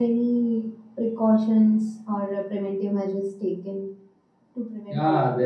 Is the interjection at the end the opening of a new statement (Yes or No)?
Yes